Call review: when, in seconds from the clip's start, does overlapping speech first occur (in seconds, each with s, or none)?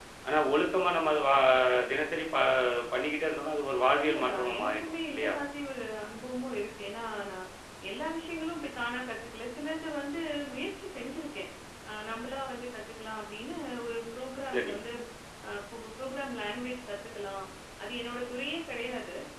3.9 s